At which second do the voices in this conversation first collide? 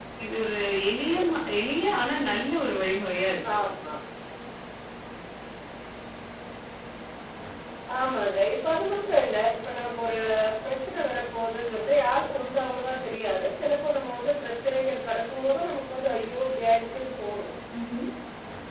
none

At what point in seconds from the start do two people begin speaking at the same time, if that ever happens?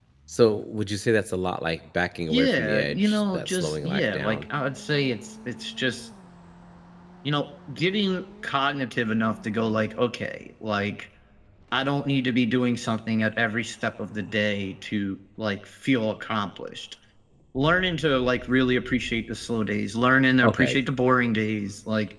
2.3 s

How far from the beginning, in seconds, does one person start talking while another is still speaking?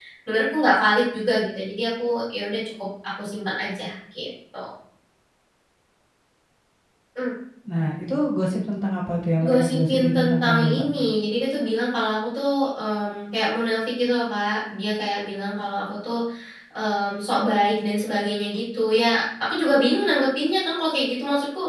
9.4 s

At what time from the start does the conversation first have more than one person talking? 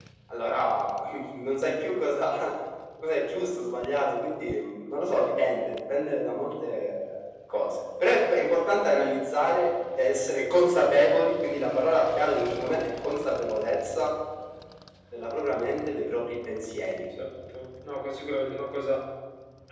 none

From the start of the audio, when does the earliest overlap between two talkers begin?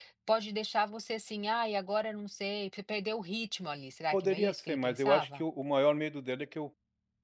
4.1 s

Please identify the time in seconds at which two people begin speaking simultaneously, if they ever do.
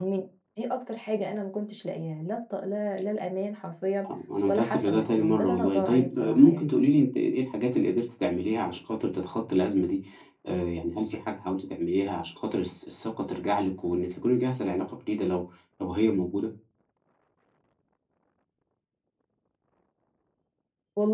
4.5 s

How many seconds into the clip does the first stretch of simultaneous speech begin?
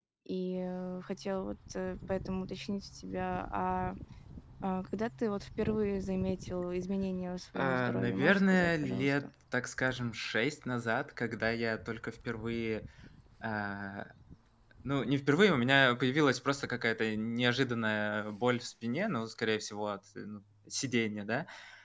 7.6 s

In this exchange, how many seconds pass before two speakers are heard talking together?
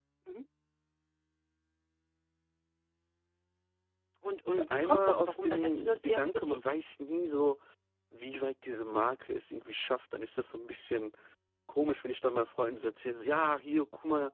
4.7 s

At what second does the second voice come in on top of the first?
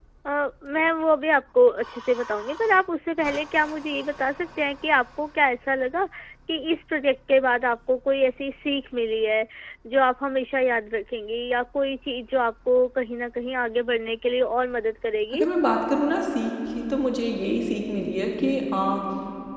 none

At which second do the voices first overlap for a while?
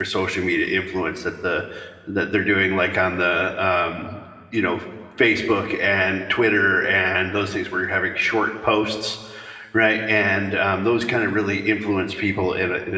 none

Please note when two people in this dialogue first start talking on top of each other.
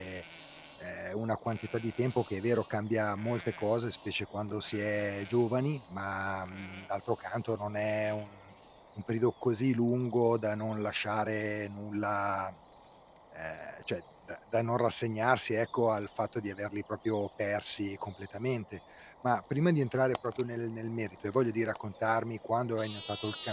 none

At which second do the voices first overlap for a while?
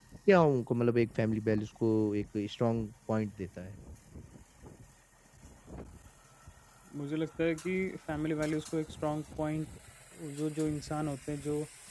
none

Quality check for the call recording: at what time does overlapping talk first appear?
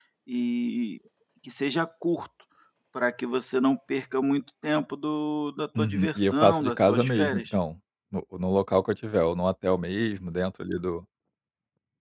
5.8 s

